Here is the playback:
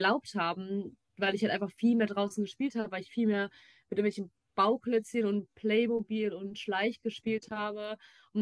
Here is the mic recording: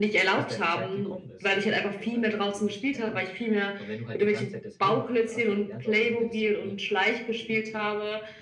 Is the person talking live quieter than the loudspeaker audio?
Yes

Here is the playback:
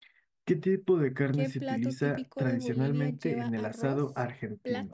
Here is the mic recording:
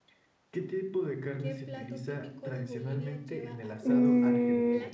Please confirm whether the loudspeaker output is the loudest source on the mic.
No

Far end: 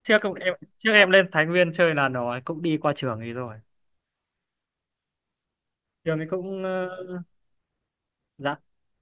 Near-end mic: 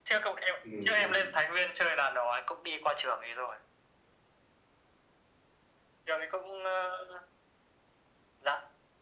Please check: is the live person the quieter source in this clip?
Yes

